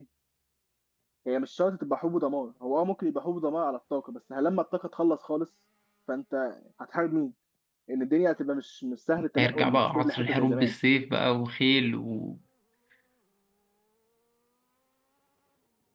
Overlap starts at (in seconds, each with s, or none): 9.4 s